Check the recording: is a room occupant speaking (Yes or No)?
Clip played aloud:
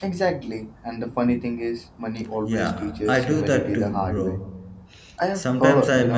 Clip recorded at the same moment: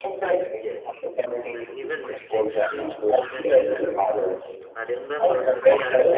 Yes